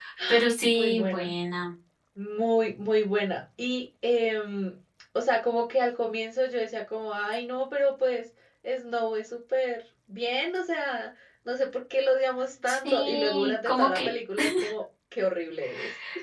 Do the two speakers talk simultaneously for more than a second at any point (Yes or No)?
Yes